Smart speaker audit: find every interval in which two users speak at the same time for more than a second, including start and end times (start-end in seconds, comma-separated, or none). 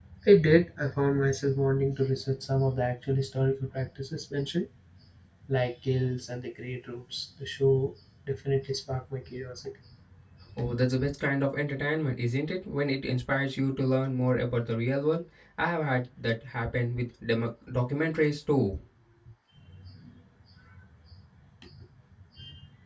none